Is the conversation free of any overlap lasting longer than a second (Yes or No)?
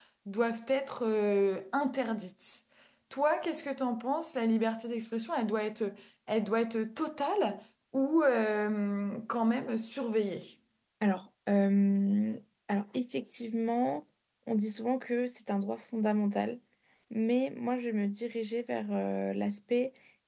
Yes